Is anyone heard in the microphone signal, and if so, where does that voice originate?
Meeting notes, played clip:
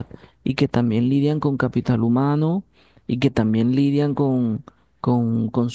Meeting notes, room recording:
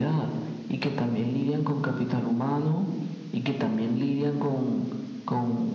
echo only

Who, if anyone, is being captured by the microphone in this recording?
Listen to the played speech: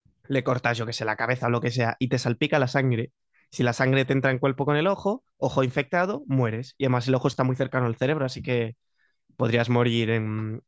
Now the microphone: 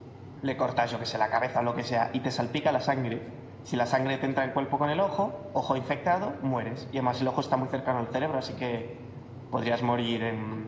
echo only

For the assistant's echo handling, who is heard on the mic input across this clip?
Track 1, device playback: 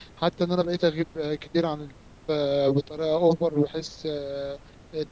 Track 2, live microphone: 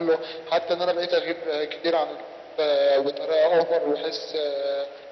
echo only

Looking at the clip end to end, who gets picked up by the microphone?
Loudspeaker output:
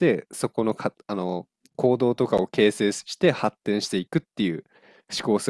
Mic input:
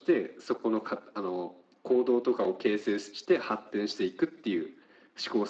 echo only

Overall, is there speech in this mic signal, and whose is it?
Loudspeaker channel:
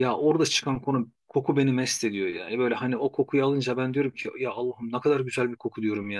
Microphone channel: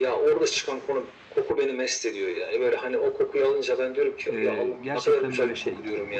both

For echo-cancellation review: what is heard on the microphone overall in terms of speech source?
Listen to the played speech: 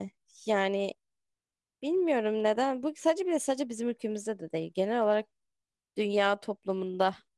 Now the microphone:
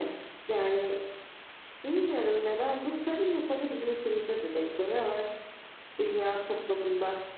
echo only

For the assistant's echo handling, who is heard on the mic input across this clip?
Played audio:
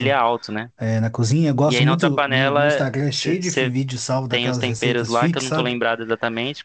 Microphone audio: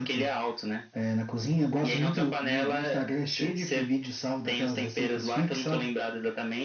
echo only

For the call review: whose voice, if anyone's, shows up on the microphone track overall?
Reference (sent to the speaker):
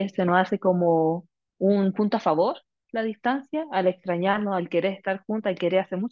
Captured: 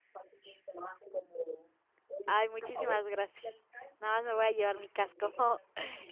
both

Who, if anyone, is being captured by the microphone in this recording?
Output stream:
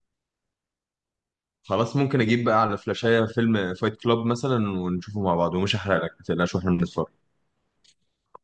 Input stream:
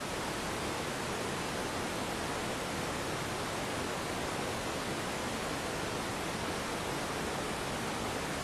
neither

